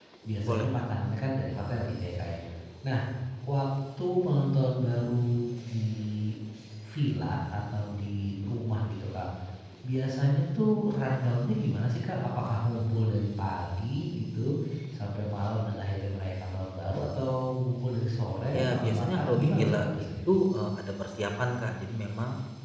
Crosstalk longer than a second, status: present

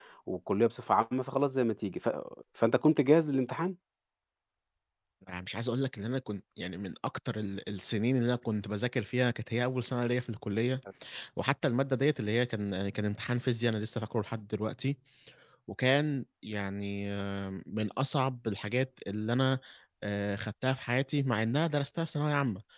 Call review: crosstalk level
none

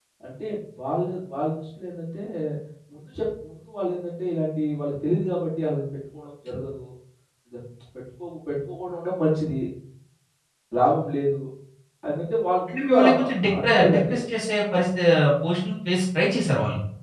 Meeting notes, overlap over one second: present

